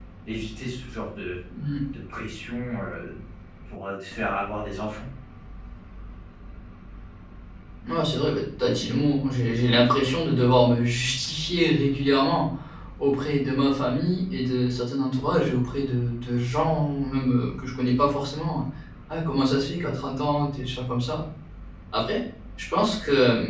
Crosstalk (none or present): none